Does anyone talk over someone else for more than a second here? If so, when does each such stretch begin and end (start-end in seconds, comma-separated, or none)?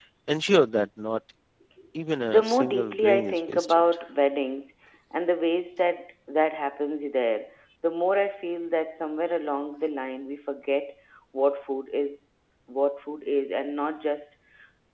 2.3-3.8